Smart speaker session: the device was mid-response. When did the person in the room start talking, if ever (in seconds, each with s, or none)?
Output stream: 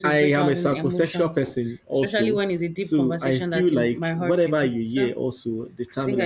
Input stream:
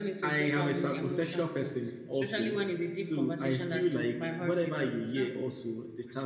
none